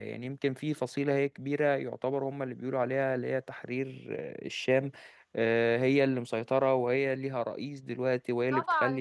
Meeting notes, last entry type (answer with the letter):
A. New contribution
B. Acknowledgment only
A